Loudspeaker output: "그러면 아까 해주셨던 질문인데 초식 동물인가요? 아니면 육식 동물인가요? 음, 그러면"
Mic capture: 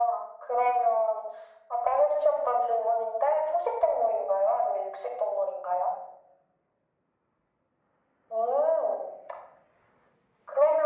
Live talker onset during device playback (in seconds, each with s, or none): none